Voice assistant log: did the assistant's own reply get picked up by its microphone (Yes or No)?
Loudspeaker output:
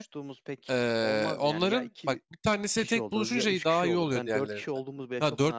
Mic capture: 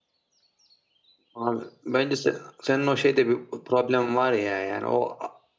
No